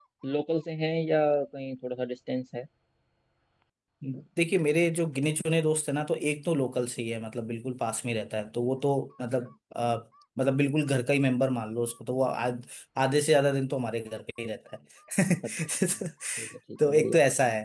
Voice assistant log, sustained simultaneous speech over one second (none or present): none